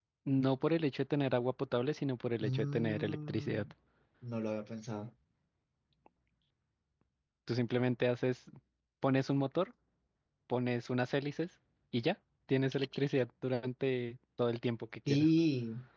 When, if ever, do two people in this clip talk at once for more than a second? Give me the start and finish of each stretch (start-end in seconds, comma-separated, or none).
2.4-3.7